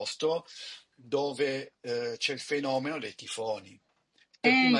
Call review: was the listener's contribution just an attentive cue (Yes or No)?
Yes